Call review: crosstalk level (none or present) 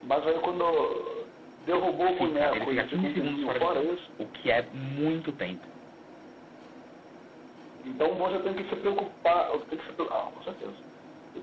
present